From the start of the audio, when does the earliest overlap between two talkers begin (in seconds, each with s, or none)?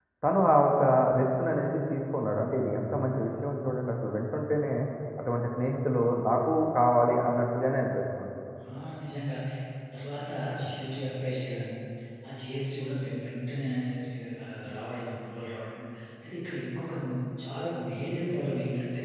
none